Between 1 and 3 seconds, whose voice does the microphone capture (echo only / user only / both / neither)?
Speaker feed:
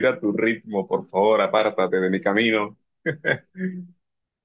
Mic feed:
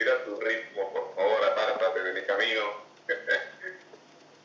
echo only